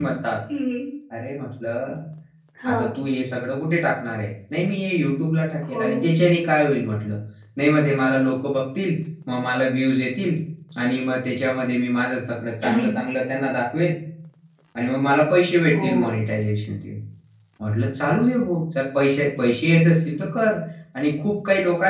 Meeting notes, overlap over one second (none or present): none